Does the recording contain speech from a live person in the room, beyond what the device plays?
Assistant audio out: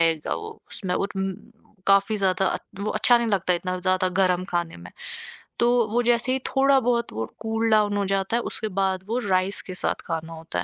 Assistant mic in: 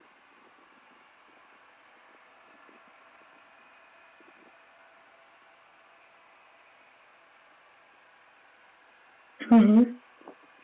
Yes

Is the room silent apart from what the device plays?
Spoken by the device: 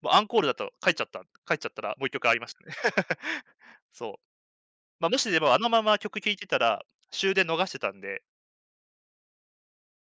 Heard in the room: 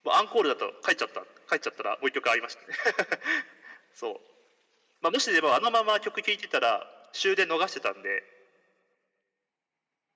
Yes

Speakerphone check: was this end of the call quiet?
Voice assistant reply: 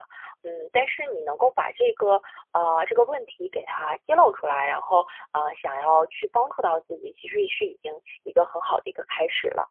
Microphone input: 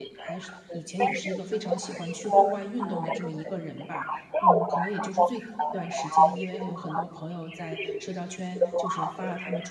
No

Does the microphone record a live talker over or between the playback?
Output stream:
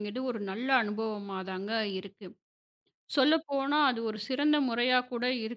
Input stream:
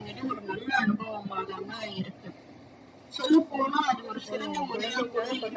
Yes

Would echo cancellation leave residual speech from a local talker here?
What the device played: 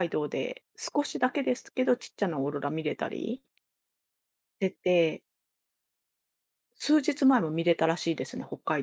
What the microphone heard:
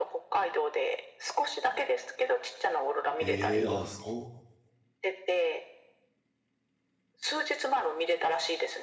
Yes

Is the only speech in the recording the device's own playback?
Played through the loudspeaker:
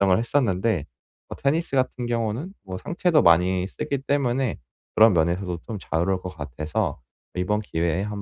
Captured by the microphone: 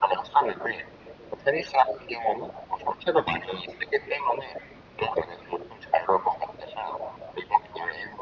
Yes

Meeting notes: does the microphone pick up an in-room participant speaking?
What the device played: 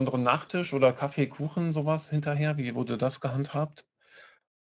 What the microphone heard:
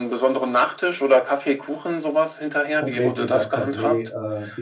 Yes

